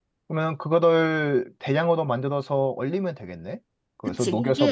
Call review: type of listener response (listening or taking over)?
taking over